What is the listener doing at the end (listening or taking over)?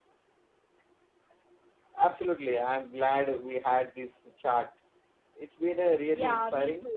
taking over